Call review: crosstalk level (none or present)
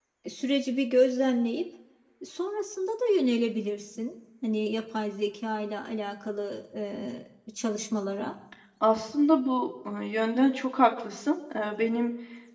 none